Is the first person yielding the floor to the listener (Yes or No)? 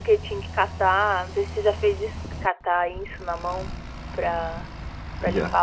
No